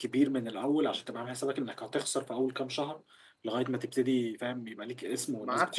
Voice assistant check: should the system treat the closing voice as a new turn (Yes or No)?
Yes